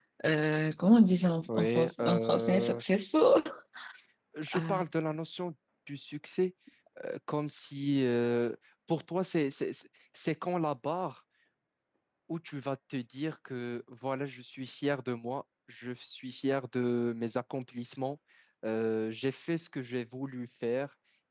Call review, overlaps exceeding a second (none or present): present